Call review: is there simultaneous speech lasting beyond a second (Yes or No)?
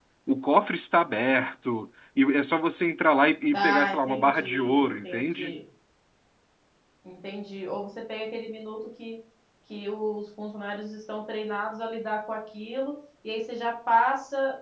Yes